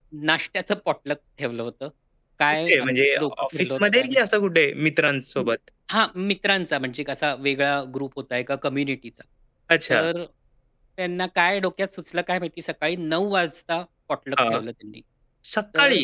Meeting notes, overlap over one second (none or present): present